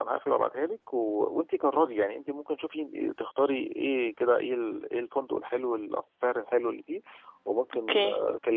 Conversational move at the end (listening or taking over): listening